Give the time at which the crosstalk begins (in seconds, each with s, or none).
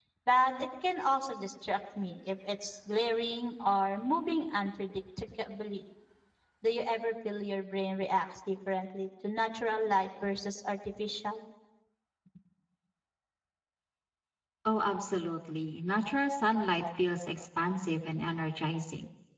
none